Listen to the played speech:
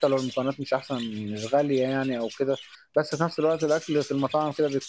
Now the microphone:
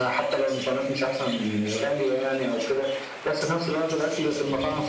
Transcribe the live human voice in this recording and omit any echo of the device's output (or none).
none